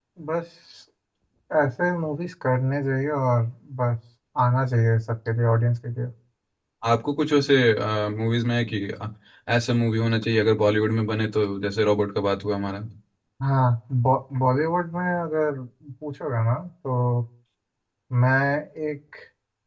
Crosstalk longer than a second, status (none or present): none